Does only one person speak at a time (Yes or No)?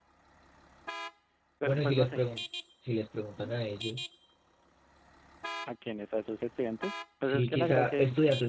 No